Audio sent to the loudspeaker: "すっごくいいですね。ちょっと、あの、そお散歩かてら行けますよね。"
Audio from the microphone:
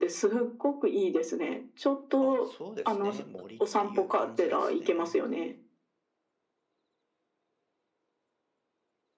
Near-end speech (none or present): present